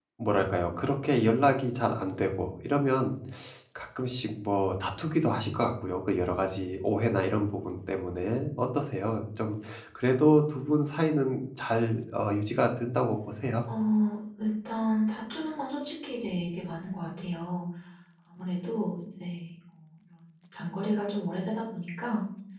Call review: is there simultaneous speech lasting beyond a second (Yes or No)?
No